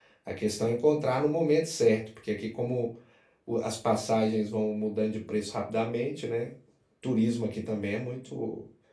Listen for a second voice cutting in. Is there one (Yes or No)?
No